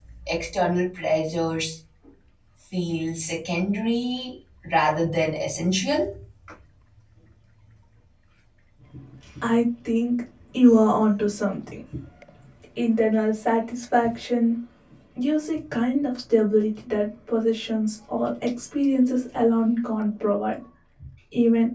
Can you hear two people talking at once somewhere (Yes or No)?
No